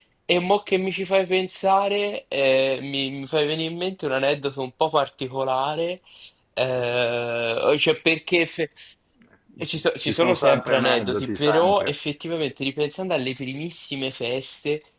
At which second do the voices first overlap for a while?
10 s

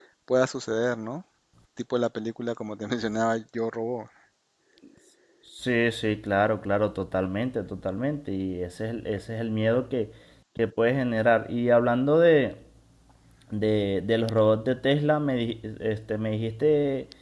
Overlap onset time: none

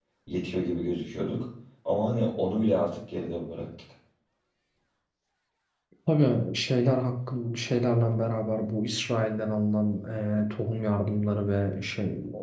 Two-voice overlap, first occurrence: none

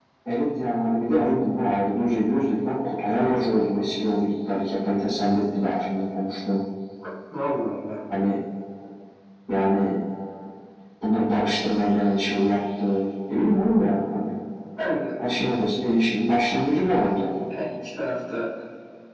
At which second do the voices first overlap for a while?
none

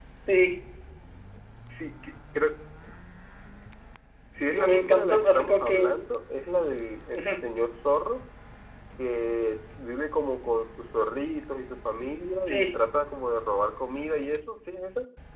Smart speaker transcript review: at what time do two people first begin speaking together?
5 s

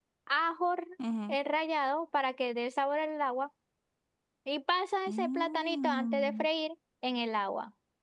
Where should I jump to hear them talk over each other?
5 s

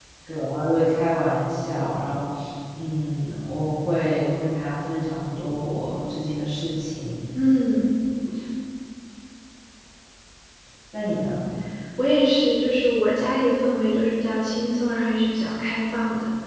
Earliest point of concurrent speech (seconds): none

